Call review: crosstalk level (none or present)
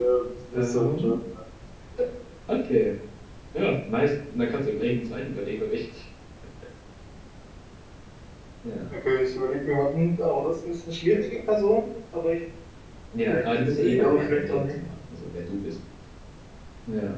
present